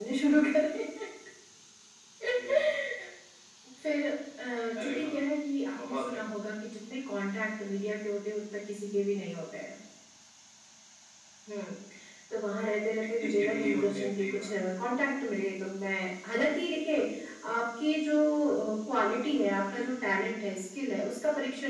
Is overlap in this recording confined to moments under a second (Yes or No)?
No